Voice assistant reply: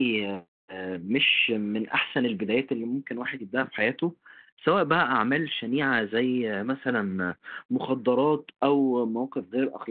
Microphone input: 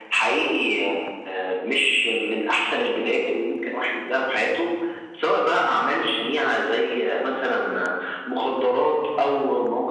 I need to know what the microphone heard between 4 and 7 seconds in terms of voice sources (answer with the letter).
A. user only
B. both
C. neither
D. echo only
D